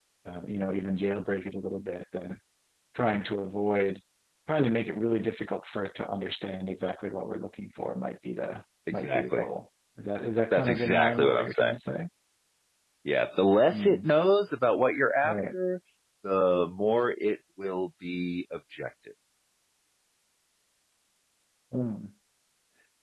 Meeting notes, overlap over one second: present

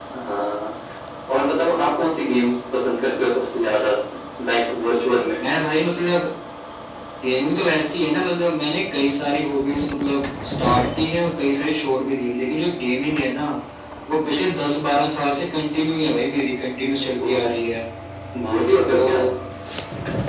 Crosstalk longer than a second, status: none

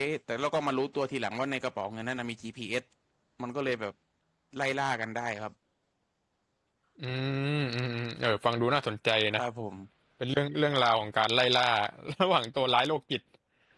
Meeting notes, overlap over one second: none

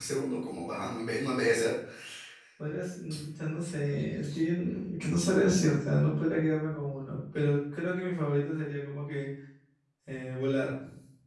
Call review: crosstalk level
none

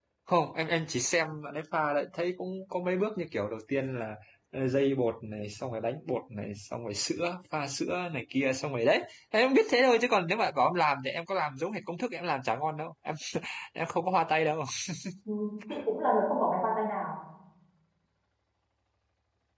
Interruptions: none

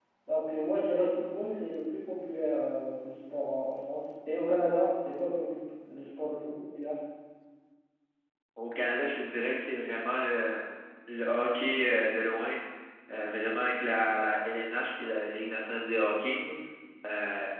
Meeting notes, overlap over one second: none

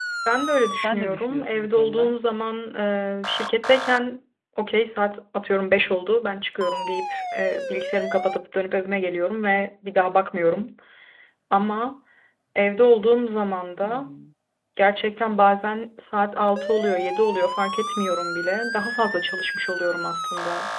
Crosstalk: present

